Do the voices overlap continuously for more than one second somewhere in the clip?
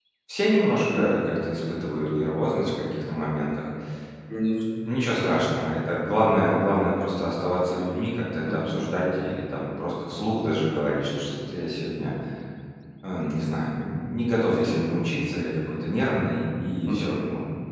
No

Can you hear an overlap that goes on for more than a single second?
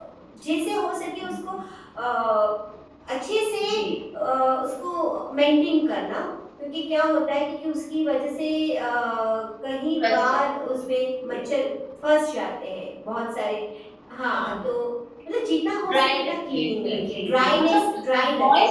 Yes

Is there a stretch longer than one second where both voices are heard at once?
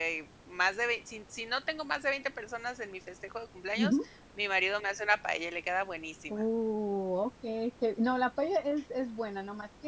No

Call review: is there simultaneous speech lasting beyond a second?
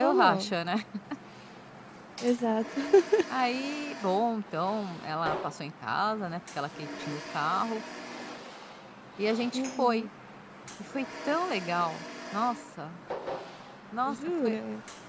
No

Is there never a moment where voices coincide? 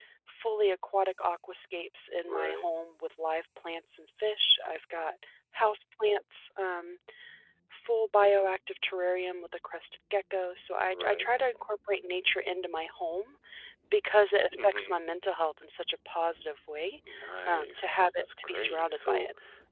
No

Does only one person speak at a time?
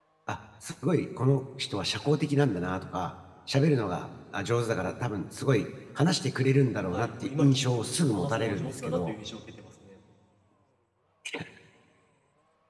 No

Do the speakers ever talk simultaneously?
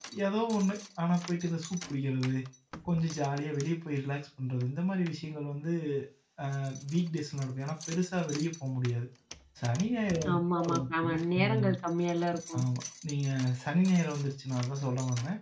Yes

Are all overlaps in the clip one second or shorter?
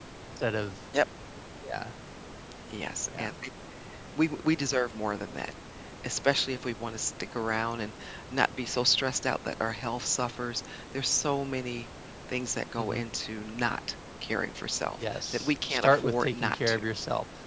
No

